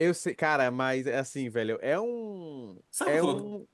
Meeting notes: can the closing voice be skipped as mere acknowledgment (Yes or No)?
No